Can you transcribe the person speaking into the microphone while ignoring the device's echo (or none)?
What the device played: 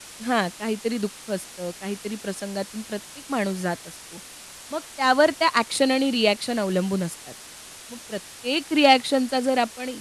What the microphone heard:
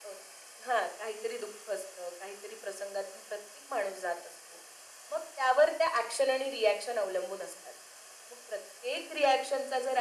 none